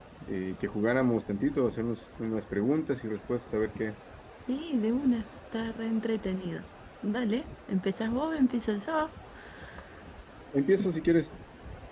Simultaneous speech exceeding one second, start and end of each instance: none

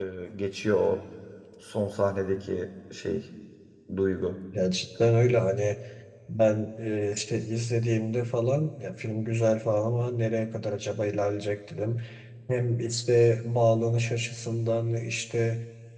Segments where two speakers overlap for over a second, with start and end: none

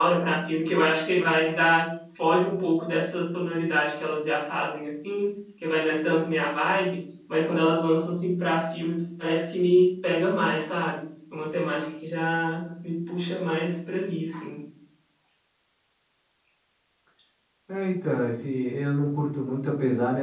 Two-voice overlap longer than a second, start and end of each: none

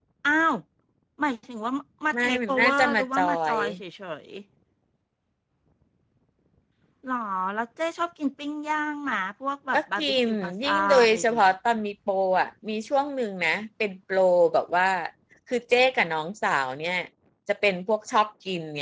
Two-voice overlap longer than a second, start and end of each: 2.1-3.6, 9.7-11.5

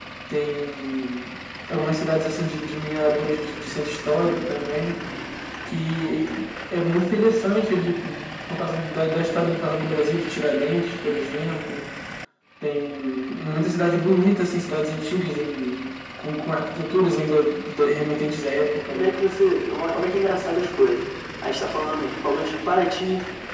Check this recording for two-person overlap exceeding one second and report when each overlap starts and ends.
none

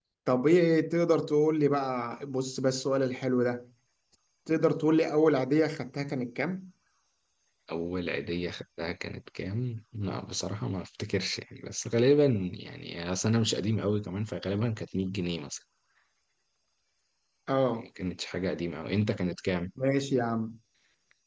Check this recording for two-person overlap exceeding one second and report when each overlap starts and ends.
none

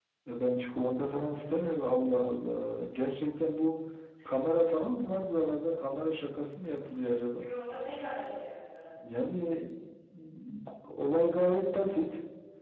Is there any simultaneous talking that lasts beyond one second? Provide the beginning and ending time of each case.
none

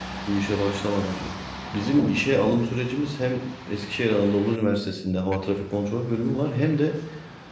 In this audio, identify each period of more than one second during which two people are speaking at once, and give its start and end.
none

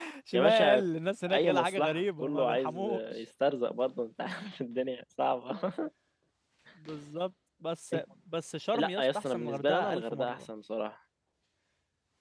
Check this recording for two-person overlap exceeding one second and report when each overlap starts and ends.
1.3-3.2, 8.7-10.4

